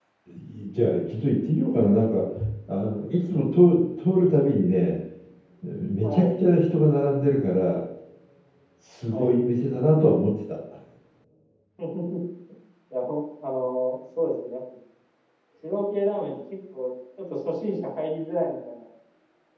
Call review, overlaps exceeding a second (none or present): none